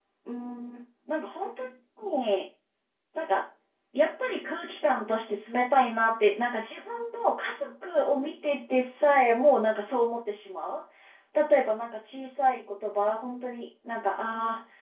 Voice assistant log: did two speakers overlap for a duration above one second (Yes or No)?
No